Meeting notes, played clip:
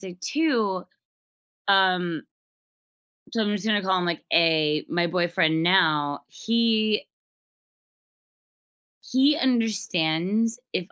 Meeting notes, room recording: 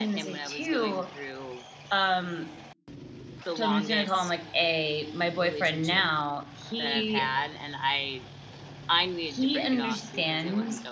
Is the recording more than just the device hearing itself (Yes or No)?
Yes